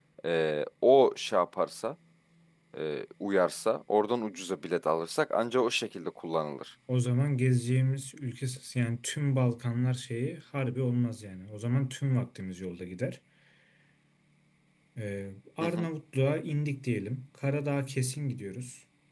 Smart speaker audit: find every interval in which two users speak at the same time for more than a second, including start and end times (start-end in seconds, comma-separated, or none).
none